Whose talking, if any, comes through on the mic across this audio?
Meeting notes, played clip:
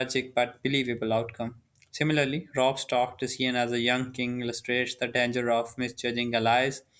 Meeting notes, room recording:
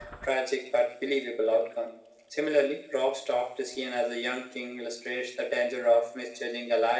echo only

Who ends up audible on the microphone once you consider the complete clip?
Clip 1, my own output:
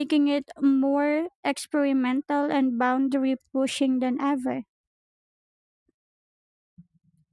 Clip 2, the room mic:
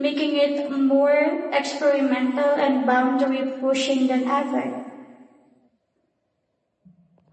echo only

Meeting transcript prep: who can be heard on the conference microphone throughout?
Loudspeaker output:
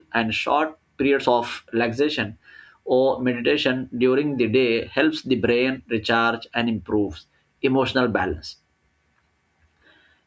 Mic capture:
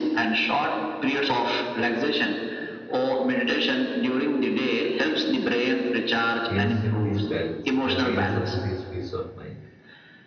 both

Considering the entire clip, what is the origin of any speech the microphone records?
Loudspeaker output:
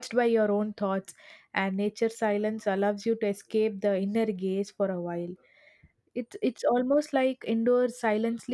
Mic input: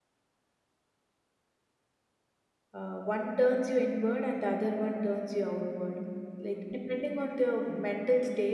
user only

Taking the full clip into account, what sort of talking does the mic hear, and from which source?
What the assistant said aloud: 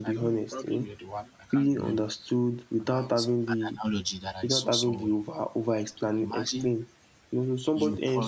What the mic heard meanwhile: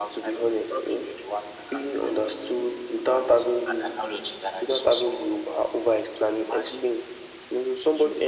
echo only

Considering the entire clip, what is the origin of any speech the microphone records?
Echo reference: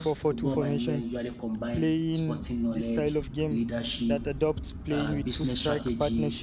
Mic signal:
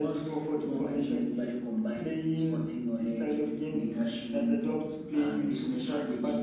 echo only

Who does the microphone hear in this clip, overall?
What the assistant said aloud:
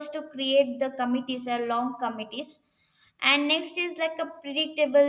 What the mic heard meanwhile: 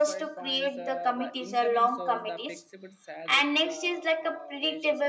both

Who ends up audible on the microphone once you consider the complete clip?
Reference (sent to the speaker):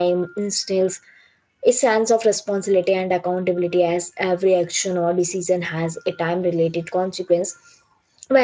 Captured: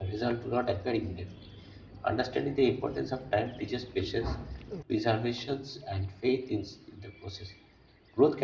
user only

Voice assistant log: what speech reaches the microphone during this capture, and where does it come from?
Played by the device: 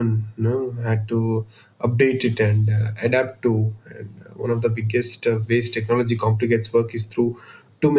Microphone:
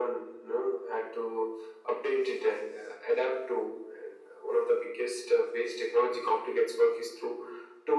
echo only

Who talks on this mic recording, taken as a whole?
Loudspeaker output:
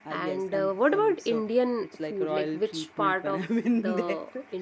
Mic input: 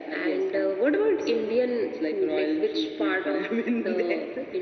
echo only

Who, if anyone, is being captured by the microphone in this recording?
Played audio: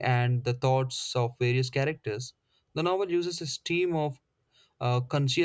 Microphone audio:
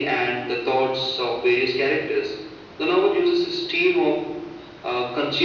echo only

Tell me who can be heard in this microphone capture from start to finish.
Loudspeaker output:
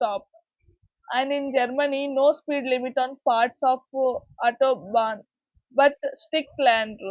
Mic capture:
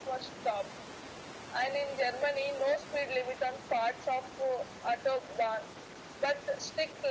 echo only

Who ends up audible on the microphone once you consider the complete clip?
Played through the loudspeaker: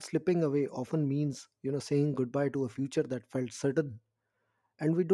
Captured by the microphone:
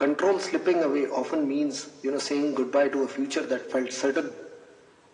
echo only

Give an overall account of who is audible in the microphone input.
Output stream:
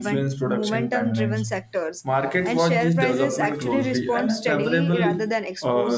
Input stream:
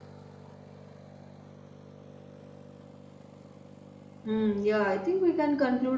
user only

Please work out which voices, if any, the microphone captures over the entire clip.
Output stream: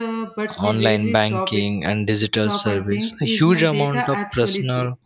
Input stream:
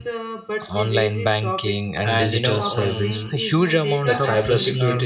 both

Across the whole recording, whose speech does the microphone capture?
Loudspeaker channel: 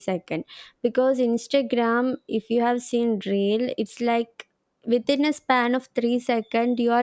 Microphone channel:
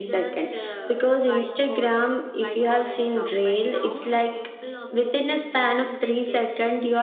both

